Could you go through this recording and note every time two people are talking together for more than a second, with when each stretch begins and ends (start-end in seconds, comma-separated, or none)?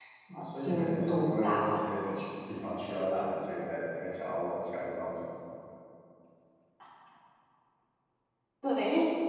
0.6-2.1